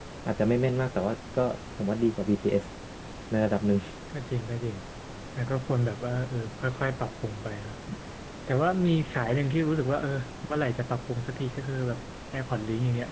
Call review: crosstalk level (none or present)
none